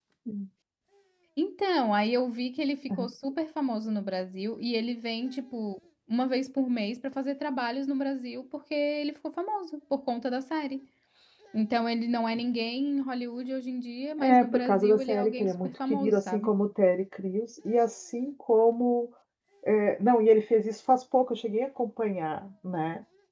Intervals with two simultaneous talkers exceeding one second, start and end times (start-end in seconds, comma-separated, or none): 14.2-16.5